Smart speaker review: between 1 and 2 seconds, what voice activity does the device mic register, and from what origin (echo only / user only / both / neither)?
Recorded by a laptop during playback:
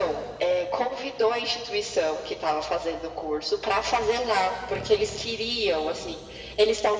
echo only